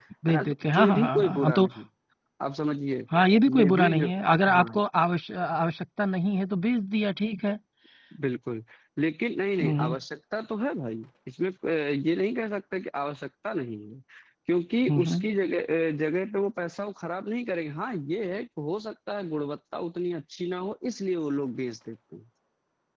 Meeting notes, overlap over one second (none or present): present